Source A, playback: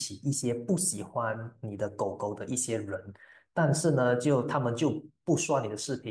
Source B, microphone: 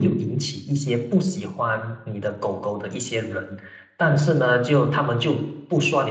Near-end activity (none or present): none